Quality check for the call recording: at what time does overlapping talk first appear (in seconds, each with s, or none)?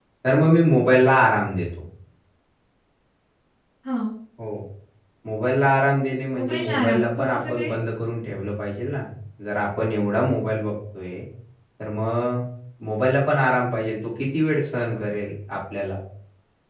6.3 s